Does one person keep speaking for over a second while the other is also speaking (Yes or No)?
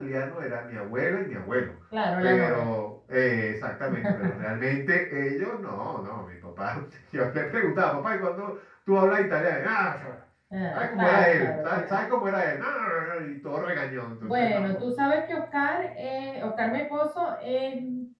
Yes